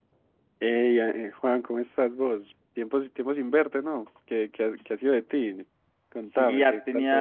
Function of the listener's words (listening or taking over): taking over